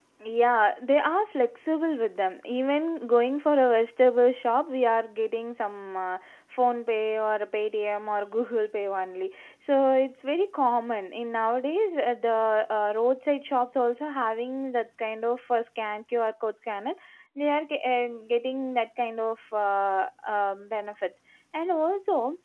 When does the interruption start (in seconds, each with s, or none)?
none